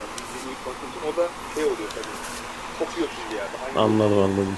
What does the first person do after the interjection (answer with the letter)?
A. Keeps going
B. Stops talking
B